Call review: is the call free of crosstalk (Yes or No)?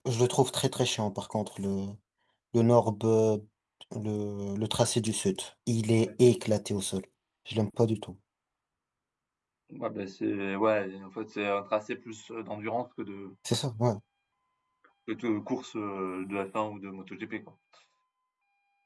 Yes